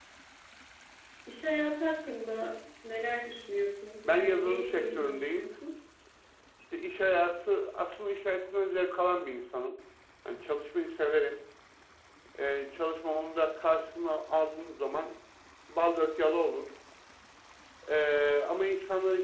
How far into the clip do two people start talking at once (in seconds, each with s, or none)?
4.0 s